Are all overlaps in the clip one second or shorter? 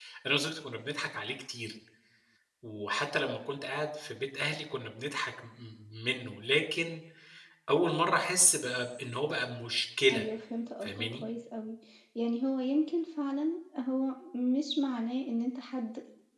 Yes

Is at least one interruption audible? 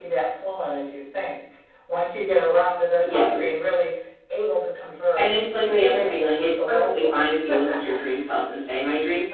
Yes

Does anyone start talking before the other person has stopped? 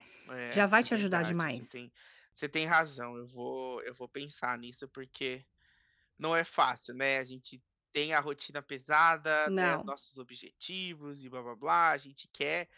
Yes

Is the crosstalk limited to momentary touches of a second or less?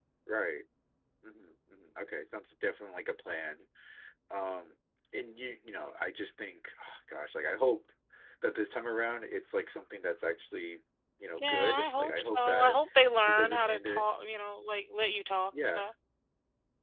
No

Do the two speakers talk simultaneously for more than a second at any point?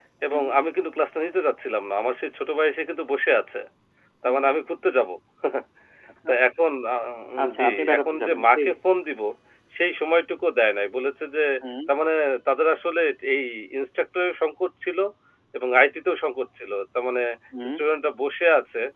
Yes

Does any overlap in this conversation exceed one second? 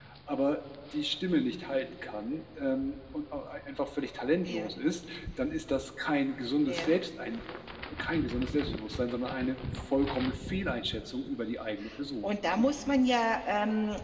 No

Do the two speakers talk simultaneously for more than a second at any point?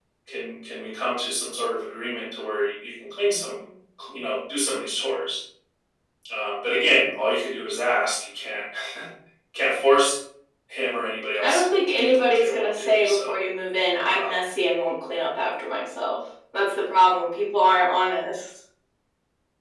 Yes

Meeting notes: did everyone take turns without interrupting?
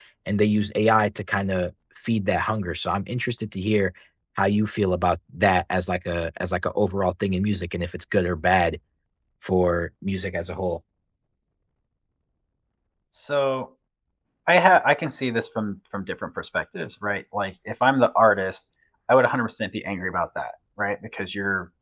Yes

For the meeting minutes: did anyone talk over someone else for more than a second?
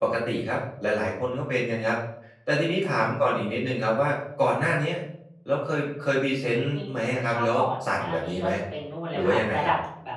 Yes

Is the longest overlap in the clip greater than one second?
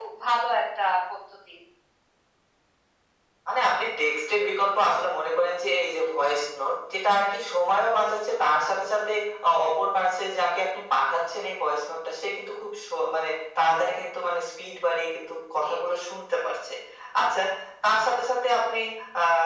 No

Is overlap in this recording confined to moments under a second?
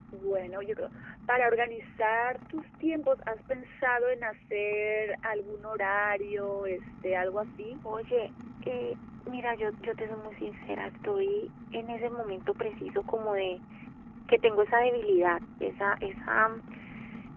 Yes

